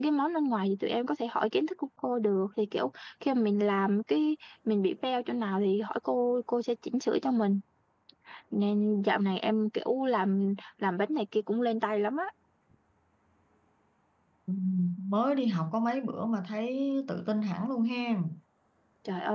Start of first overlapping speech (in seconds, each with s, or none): none